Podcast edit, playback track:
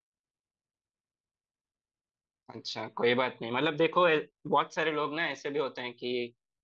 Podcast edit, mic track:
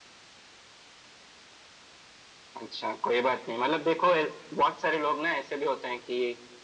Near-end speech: none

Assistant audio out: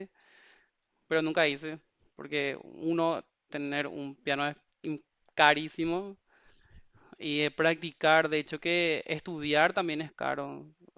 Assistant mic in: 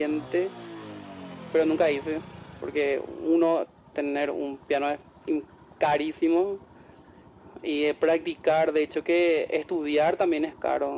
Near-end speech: none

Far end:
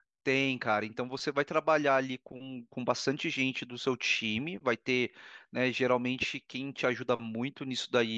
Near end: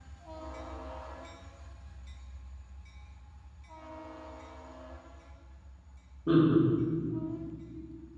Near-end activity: present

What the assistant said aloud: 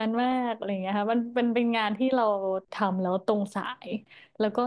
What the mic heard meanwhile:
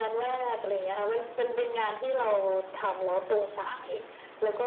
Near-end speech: none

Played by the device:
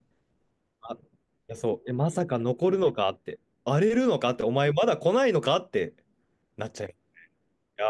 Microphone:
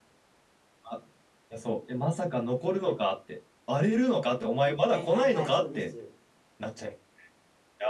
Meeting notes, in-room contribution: present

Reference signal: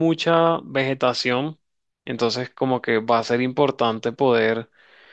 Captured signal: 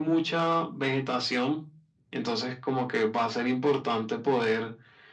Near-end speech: none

